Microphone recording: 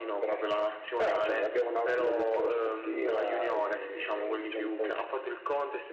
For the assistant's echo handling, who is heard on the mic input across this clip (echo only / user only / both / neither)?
echo only